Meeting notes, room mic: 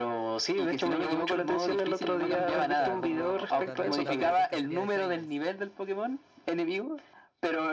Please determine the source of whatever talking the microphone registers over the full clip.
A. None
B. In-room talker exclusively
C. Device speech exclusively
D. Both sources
D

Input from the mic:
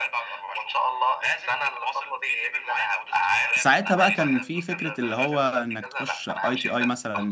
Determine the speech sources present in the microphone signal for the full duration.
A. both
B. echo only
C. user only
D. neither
A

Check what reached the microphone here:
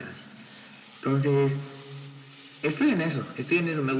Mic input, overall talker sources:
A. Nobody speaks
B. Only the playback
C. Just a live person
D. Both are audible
B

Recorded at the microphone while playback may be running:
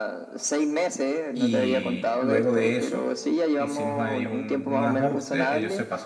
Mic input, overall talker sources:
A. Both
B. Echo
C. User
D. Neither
A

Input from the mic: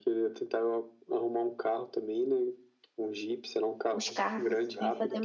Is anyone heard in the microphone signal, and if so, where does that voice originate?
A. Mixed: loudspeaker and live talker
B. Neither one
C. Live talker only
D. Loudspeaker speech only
A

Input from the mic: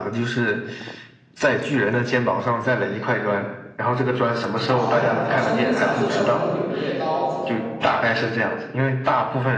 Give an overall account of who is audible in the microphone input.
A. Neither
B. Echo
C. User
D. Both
D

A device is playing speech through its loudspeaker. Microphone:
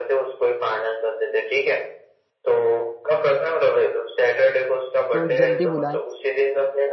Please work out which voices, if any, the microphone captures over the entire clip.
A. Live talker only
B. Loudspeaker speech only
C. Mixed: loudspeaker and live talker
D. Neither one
C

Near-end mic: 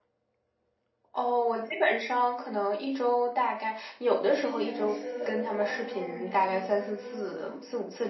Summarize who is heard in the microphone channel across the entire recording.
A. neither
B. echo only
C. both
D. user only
C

